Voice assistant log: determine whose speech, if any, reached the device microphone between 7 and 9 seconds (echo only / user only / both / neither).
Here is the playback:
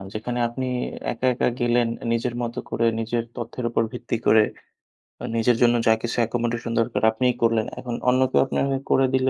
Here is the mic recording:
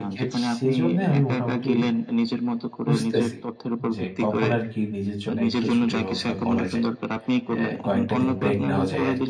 both